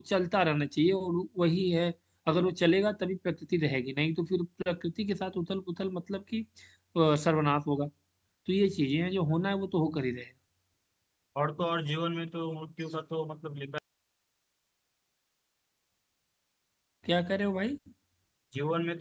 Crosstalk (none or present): none